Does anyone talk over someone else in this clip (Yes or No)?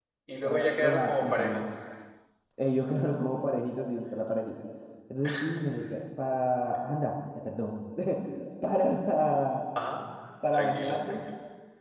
Yes